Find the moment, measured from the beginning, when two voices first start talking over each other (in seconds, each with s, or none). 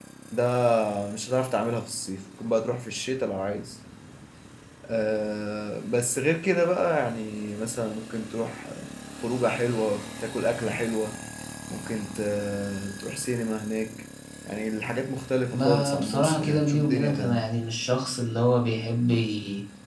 15.5 s